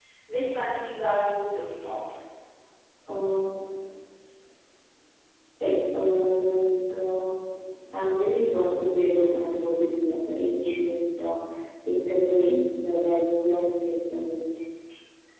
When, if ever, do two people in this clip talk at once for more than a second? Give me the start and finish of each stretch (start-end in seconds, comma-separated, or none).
none